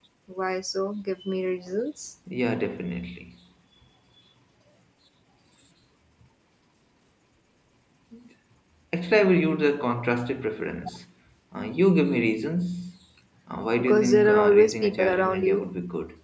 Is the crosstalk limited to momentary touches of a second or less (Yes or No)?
No